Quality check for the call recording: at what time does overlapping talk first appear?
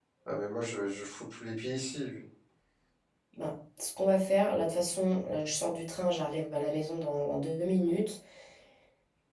none

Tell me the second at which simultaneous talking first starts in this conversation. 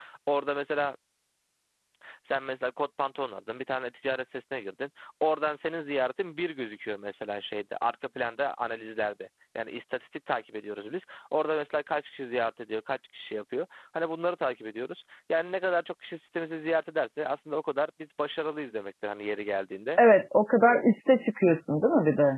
none

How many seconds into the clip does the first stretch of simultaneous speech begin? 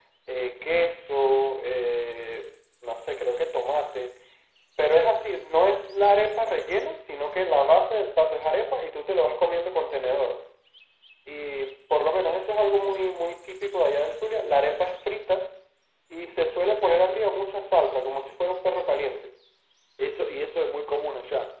none

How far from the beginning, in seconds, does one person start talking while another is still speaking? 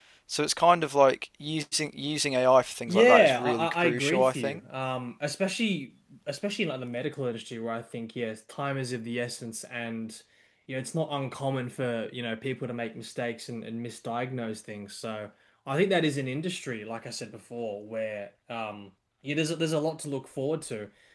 2.9 s

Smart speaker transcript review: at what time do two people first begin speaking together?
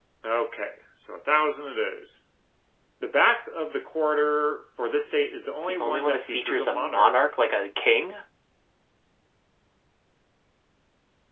5.7 s

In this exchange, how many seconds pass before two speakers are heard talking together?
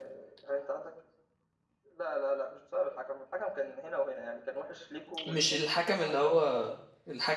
5.3 s

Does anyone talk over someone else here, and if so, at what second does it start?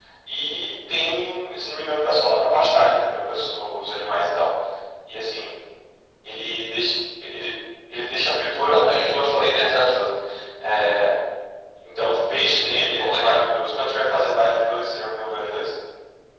8.7 s

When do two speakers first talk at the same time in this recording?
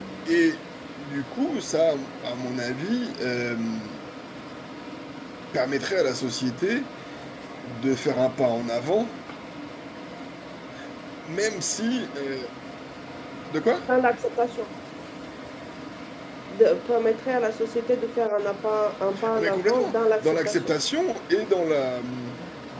19.1 s

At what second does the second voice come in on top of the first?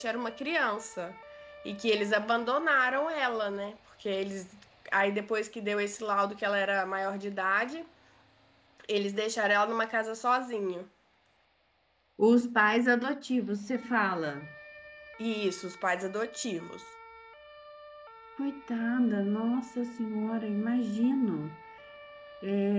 none

